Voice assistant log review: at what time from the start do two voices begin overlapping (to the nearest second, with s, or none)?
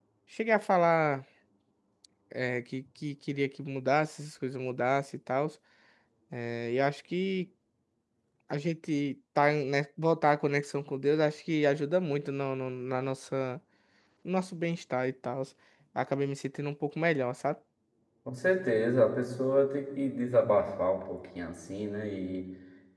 none